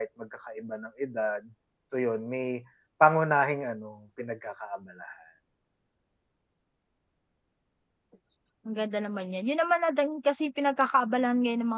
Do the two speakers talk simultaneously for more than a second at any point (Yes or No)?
No